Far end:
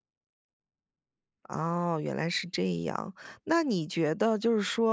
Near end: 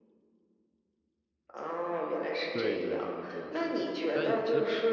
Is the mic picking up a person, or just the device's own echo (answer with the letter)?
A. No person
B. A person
B